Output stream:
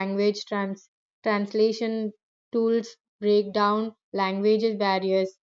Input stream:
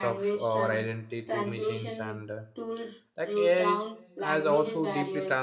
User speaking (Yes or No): Yes